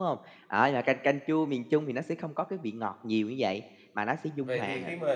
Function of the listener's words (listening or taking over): taking over